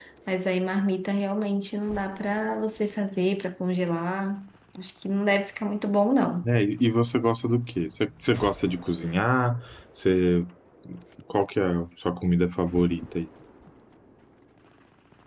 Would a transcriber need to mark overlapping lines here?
No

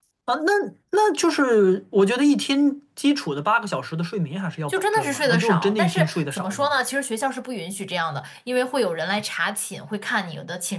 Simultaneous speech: Yes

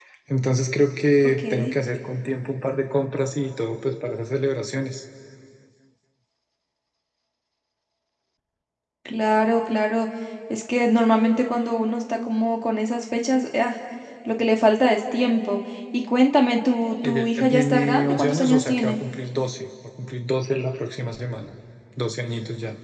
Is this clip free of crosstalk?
No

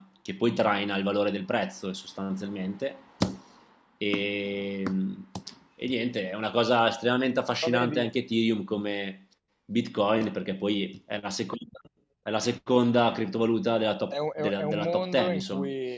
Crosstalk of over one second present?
Yes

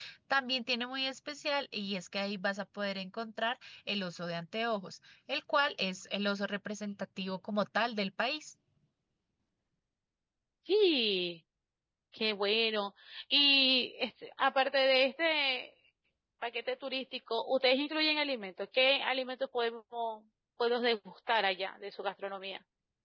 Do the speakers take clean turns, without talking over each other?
Yes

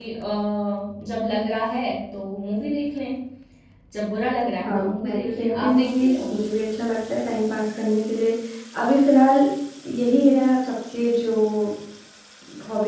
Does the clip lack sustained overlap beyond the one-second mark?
No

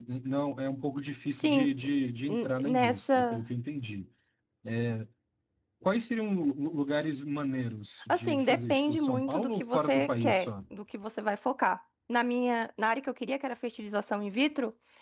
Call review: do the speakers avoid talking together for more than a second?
No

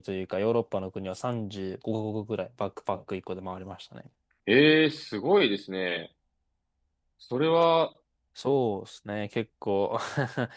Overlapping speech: No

